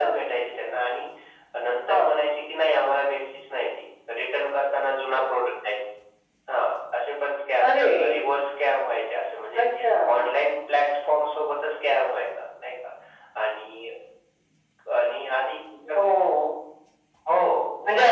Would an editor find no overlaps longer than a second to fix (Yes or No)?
Yes